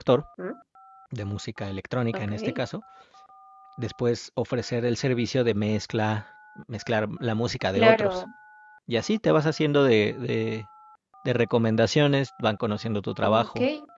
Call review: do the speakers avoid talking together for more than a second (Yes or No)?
Yes